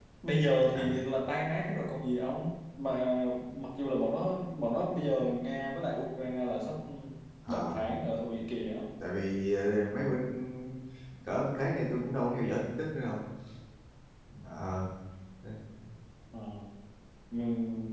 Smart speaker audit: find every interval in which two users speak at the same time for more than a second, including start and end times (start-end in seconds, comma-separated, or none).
none